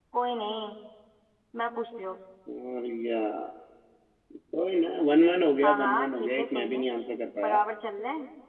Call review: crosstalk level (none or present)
present